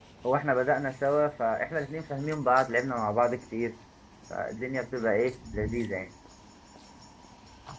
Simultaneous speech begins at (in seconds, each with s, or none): none